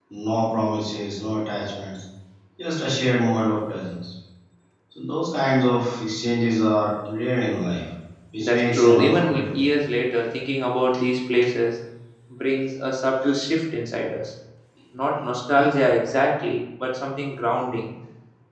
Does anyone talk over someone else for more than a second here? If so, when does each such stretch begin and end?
8.4-9.6

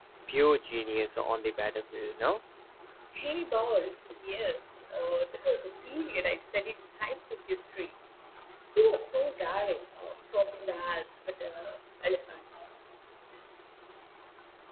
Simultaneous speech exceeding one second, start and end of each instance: none

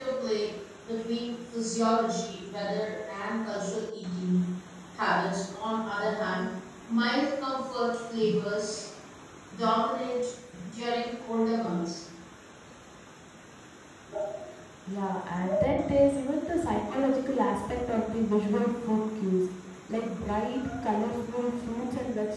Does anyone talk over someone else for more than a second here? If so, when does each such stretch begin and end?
none

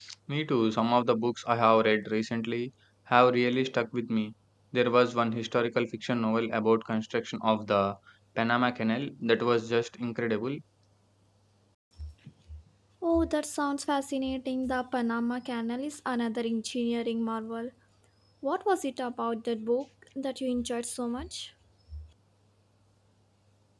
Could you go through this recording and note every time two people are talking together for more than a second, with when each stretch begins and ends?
none

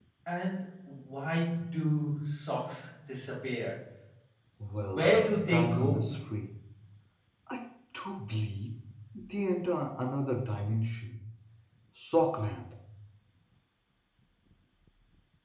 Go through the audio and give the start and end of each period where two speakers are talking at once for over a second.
4.8-6.2

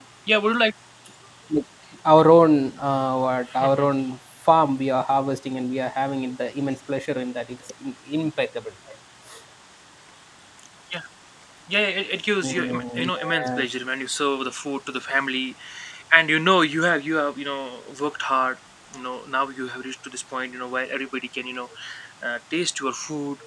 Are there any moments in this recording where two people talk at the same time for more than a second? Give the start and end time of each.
12.4-13.7

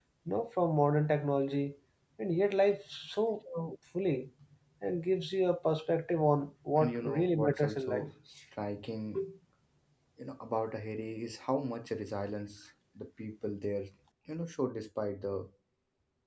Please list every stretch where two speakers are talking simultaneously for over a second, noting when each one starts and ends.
6.8-8.1

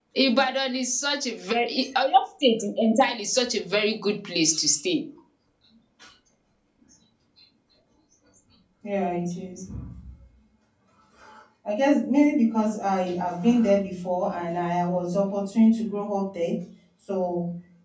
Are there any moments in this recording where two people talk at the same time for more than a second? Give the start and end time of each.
none

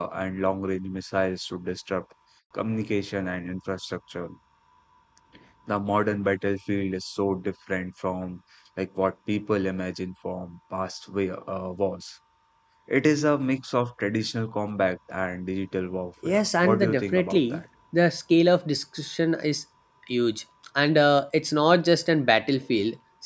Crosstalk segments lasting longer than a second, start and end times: 16.2-17.6

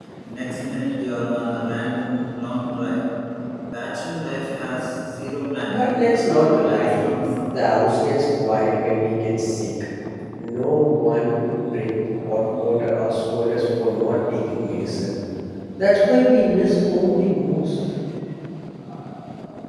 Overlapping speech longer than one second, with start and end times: 5.7-7.0

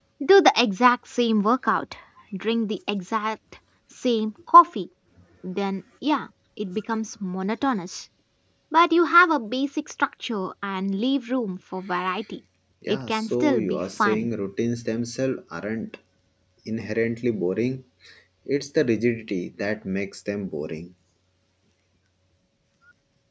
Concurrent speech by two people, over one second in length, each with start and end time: 12.9-14.3

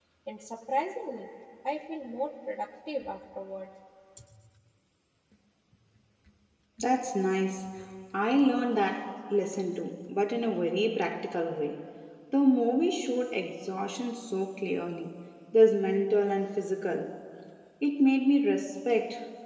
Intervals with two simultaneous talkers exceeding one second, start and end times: none

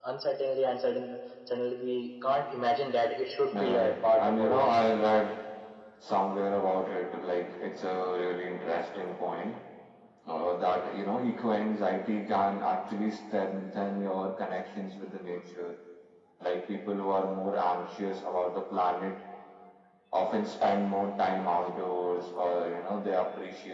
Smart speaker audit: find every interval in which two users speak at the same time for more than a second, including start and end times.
3.5-4.8

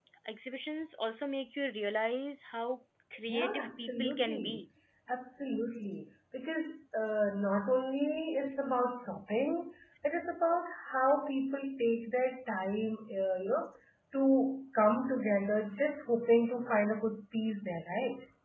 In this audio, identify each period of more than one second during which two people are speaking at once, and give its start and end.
3.3-4.6

